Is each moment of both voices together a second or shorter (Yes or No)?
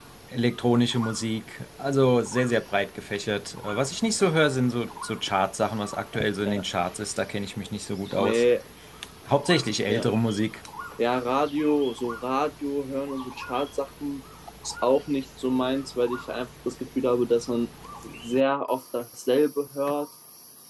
Yes